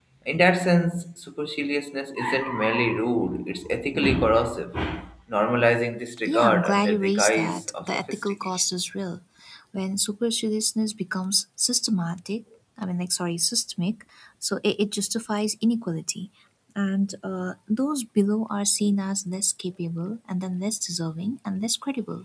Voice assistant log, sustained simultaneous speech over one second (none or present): present